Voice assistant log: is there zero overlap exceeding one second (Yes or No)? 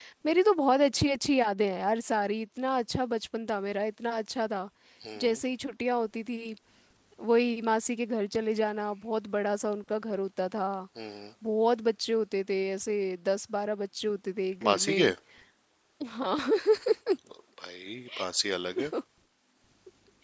Yes